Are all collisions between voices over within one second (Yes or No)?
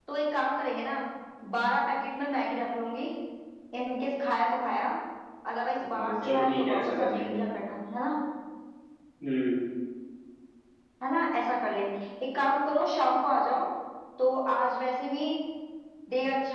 No